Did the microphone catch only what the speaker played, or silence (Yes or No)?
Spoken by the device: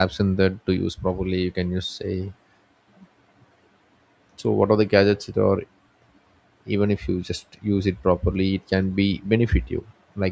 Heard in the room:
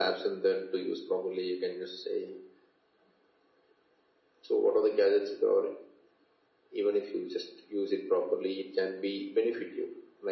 Yes